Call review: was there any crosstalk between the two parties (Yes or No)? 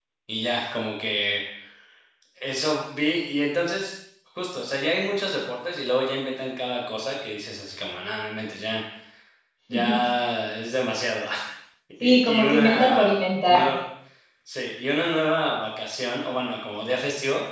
Yes